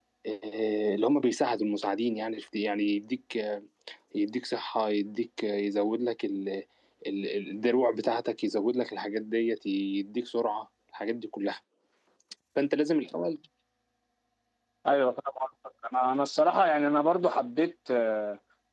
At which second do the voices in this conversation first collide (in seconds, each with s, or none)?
none